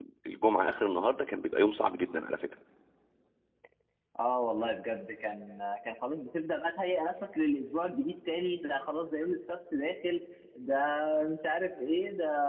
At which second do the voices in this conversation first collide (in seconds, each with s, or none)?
none